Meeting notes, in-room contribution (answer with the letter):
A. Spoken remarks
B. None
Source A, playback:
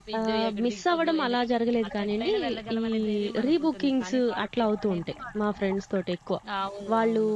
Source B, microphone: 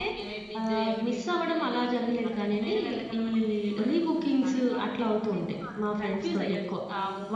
A